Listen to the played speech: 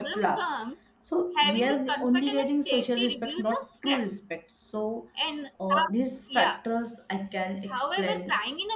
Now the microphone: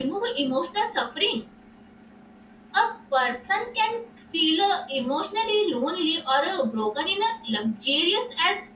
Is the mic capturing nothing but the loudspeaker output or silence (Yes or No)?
No